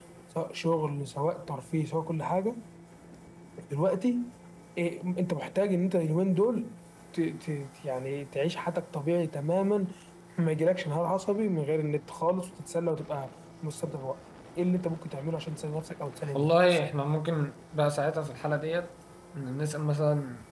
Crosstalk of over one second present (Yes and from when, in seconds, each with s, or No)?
No